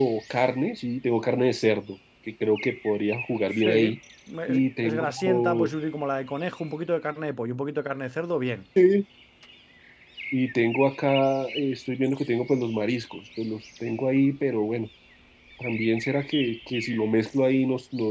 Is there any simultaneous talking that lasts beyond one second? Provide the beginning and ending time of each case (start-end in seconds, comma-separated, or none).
4.5-5.7